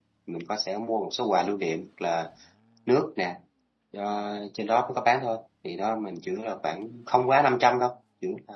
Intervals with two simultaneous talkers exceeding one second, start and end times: none

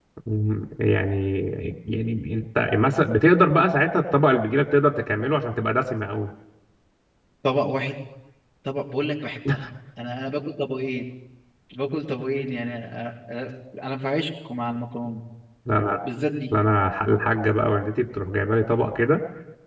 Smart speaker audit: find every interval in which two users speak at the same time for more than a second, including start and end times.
none

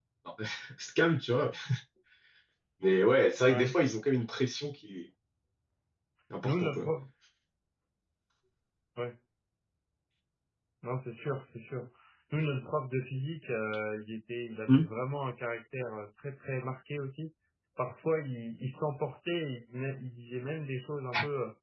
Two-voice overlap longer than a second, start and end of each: none

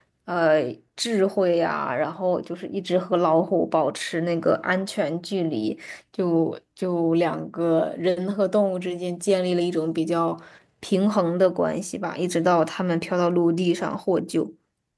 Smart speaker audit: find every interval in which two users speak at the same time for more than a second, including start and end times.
none

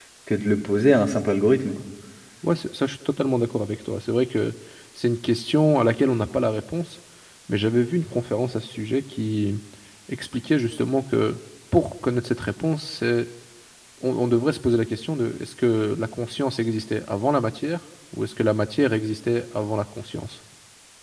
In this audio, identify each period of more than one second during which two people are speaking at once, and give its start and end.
none

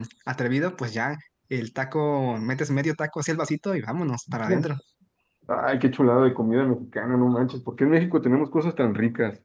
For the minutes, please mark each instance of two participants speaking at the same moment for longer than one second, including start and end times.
none

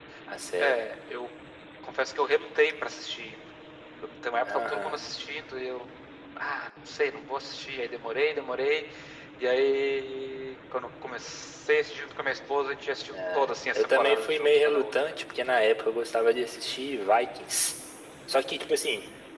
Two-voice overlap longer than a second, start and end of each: 13.7-15.2

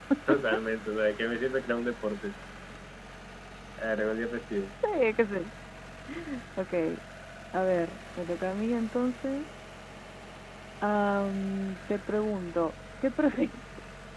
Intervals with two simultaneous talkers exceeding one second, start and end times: none

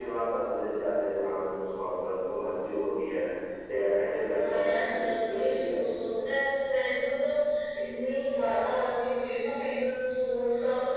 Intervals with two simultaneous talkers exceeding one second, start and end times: 4.4-5.8

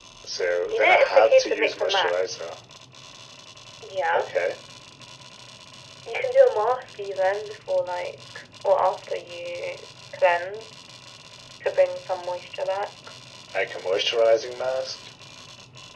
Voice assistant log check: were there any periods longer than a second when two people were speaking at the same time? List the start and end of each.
0.7-2.4

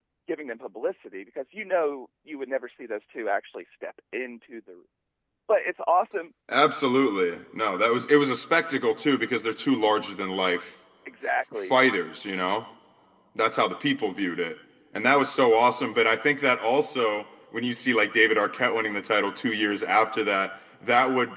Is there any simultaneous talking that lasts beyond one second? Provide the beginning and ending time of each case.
none

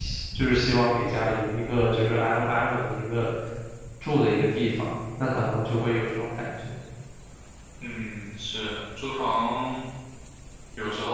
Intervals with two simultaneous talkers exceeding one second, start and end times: none

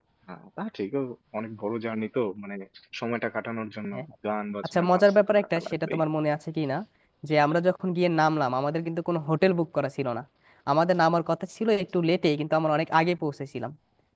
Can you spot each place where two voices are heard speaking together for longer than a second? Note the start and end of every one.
4.6-6.0

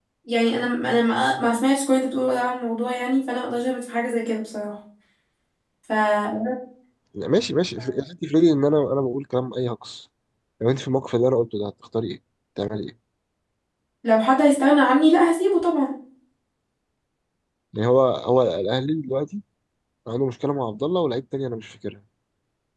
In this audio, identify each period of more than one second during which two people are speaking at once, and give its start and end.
none

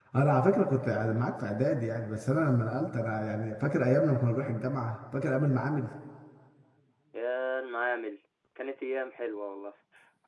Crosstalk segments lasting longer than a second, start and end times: none

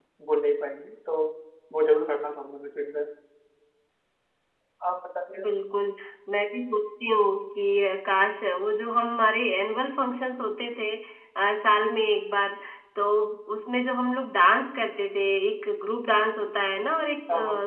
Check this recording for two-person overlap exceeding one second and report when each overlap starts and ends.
none

